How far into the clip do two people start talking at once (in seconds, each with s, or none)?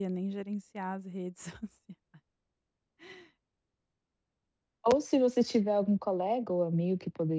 none